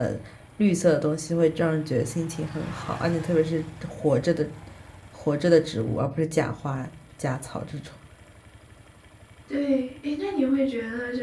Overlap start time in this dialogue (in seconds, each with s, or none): none